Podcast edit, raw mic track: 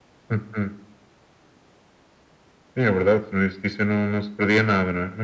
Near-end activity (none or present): none